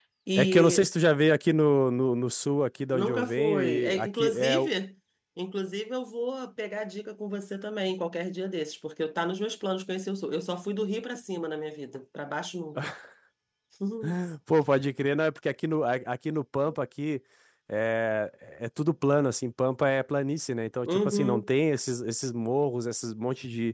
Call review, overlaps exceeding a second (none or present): present